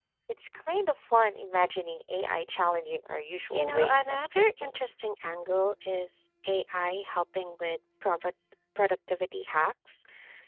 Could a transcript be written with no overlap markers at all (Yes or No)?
No